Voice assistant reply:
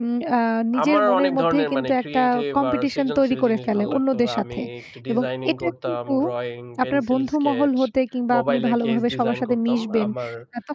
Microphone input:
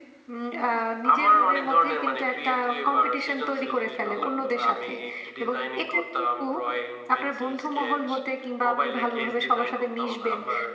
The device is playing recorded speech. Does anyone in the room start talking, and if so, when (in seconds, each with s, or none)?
none